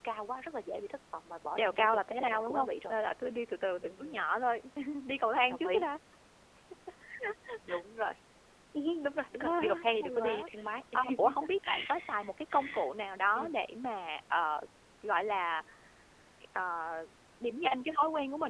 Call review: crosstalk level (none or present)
present